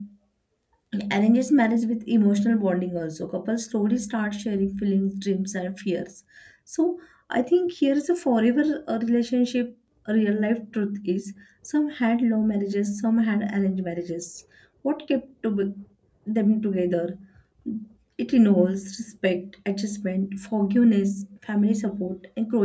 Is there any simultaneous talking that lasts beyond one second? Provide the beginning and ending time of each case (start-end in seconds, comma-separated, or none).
none